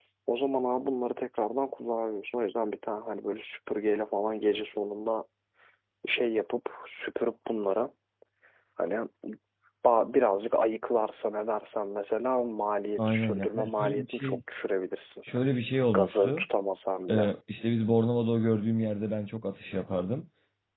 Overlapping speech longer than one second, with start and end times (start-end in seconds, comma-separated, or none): 13.0-14.4